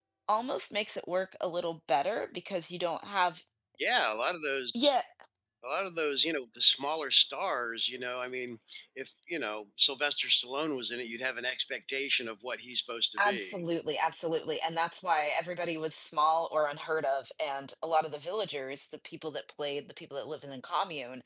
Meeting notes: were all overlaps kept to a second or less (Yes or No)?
Yes